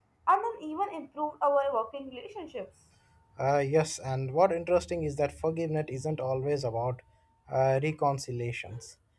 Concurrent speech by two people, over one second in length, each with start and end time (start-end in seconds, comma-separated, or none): none